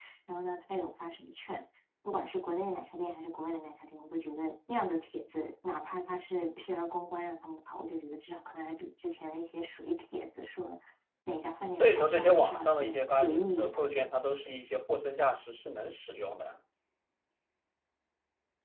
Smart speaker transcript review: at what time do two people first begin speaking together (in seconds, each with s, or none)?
11.8 s